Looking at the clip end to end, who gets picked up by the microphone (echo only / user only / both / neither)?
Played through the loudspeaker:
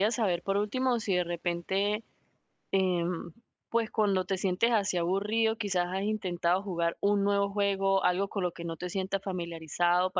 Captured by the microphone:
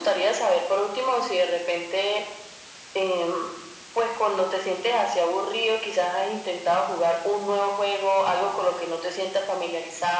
echo only